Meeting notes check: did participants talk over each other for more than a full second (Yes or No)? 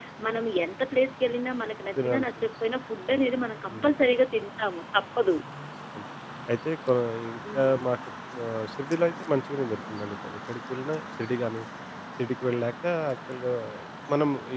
No